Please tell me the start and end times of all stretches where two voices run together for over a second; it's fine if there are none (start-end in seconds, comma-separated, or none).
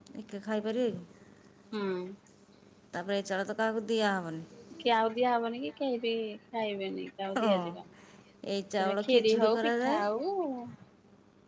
8.8-10.0